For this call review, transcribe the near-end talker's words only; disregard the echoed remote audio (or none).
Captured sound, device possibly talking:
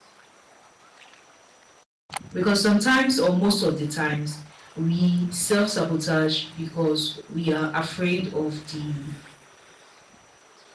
because sometimes or most of the times we self-sabotage because we are afraid of the